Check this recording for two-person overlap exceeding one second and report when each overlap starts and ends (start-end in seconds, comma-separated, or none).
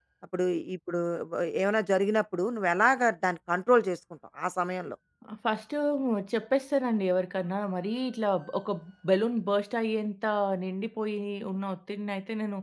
none